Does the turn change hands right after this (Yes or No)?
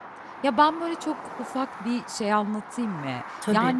No